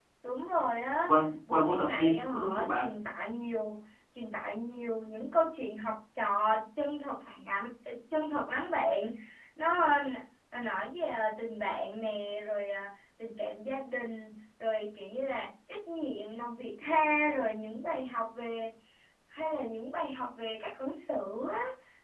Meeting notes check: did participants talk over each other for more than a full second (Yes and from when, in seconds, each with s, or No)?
Yes, from 1.5 s